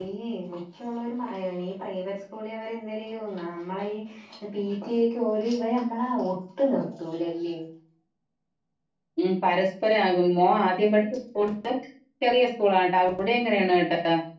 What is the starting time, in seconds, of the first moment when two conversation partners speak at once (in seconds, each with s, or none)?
none